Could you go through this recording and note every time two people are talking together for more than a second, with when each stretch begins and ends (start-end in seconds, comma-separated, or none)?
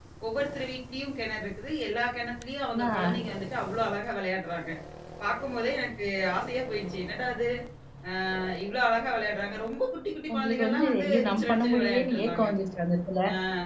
10.3-12.4